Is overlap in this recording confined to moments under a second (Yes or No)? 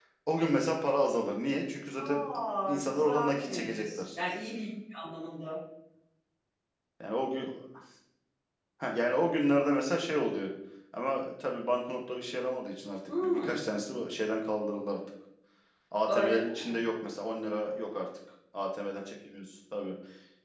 No